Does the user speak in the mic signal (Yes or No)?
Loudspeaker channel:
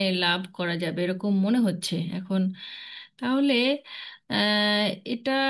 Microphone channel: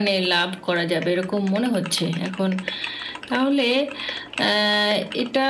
No